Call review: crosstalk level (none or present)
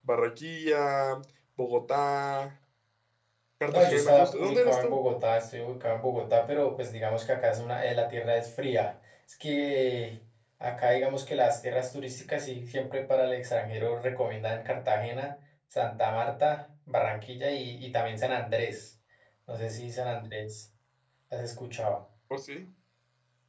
present